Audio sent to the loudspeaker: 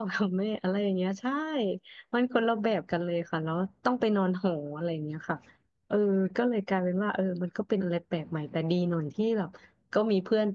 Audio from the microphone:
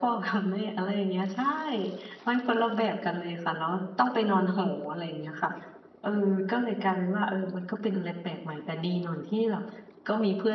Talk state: echo only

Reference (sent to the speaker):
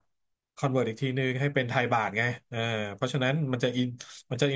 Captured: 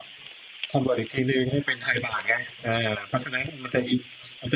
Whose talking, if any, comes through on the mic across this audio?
echo only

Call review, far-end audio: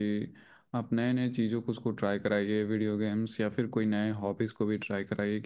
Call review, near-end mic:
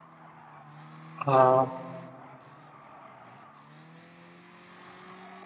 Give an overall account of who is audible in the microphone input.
user only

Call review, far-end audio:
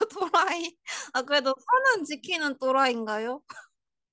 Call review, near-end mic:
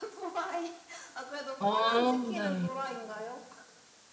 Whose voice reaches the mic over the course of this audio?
both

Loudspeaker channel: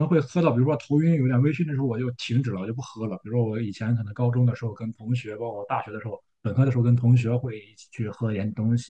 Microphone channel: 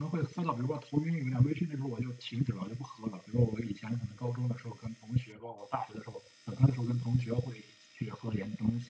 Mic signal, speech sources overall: echo only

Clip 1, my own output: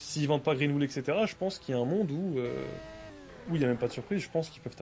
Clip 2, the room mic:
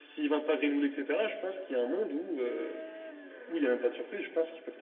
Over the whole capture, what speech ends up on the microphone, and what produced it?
echo only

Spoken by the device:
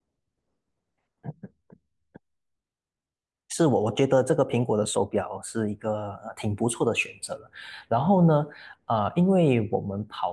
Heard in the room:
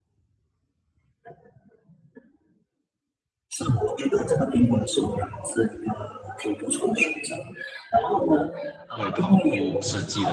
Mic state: both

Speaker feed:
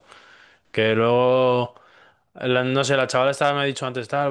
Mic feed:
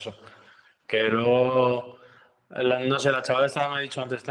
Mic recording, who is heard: echo only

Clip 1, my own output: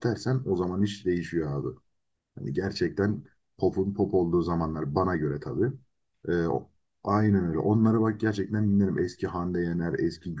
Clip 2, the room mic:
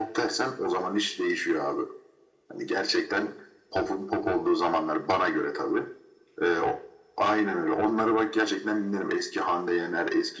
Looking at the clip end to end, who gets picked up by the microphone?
echo only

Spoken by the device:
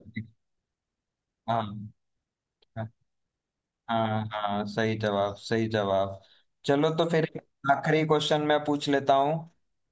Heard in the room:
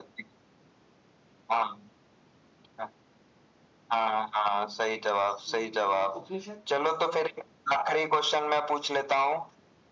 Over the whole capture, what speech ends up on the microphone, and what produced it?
both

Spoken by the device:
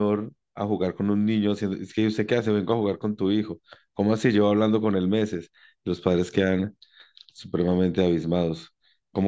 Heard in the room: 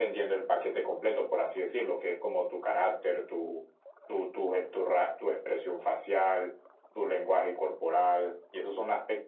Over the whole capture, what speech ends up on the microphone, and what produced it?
user only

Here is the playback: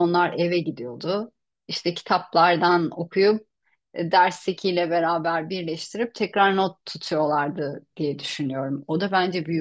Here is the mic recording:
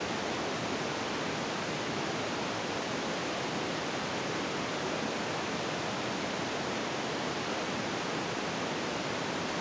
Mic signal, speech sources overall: neither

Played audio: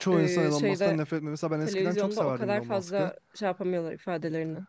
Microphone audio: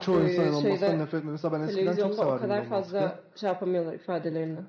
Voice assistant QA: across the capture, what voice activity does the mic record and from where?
echo only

